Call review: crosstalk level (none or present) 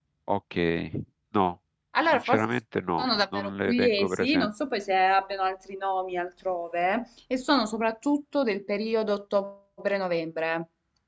present